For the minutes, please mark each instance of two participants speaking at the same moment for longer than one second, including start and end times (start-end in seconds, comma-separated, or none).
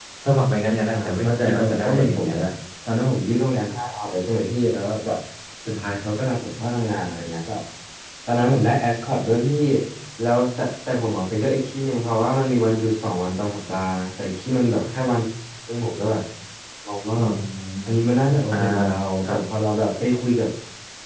0.9-2.3